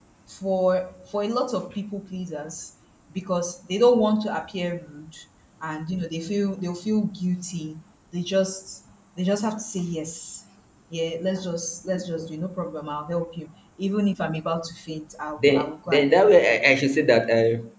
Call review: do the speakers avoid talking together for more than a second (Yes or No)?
No